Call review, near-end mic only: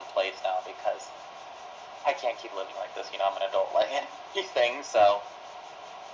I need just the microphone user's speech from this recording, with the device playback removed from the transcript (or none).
none